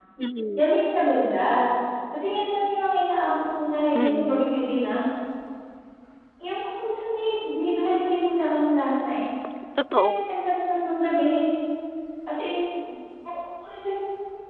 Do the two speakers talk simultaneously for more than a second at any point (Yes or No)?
No